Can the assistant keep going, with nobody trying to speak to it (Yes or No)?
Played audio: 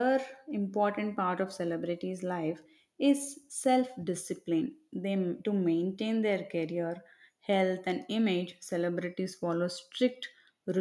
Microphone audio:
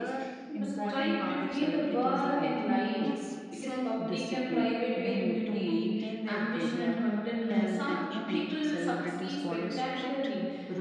No